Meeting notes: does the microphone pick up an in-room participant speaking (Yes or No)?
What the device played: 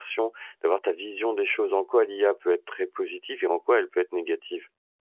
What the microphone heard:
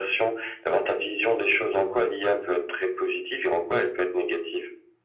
No